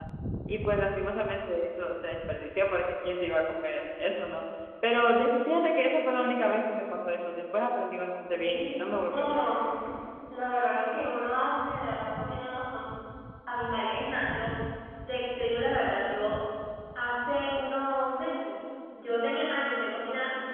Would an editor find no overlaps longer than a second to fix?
No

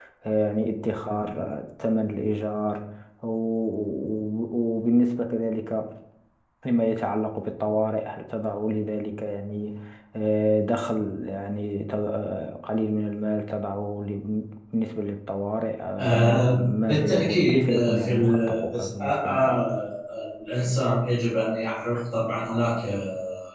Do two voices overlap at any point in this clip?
Yes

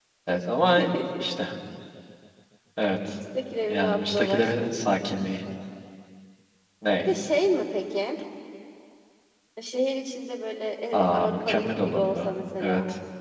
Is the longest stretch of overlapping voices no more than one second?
No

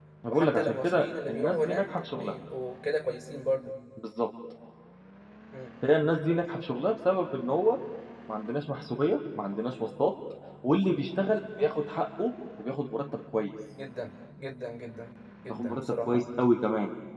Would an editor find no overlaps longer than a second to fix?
No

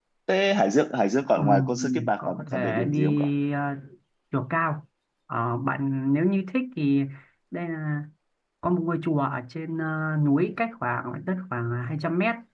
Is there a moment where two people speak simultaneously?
Yes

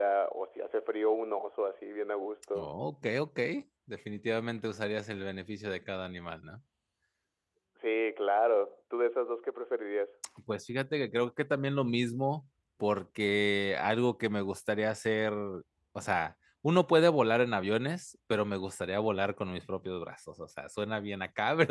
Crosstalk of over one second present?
No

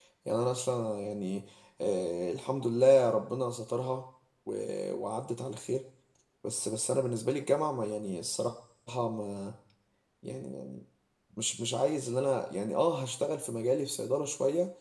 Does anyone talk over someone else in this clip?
No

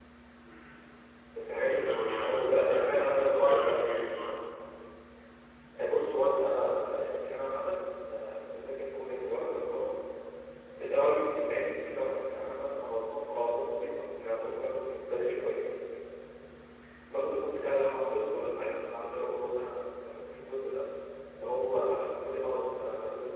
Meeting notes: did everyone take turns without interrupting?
No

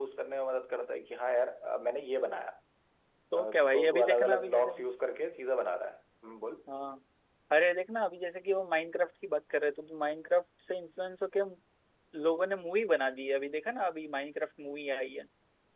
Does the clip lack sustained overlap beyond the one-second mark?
No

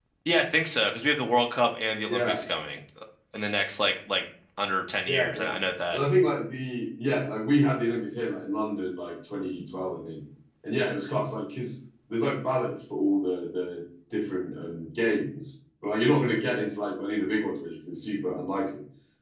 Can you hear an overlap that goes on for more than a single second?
No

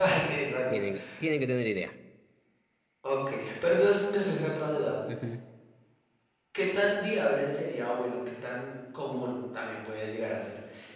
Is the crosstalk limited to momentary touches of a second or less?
Yes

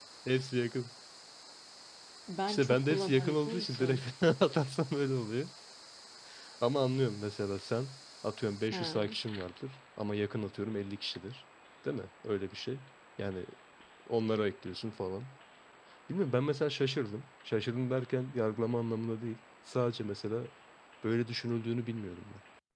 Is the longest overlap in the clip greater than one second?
Yes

